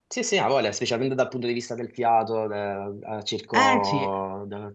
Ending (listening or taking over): listening